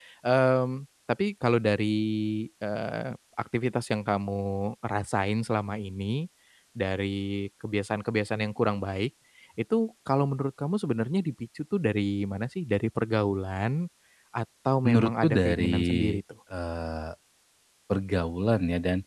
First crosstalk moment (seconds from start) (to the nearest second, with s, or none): 15 s